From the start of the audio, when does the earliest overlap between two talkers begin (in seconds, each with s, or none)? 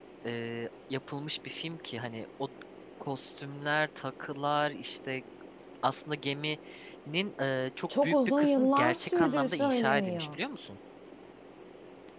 7.9 s